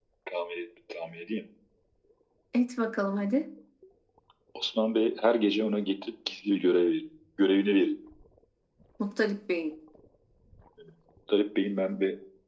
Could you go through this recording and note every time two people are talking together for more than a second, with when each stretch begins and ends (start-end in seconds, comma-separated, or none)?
none